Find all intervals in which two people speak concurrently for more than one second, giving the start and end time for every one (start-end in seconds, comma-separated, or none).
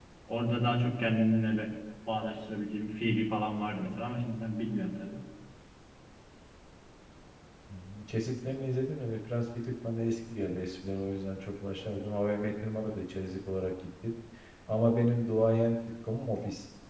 none